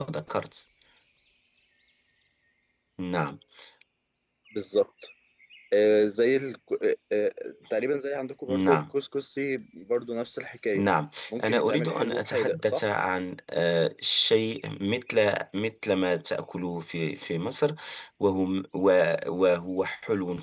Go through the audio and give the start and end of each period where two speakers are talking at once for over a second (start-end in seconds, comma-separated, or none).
11.4-12.8